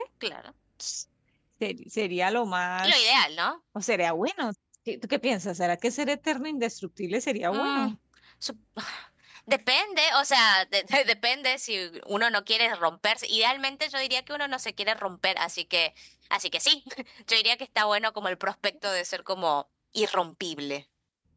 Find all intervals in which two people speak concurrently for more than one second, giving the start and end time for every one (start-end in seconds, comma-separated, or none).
none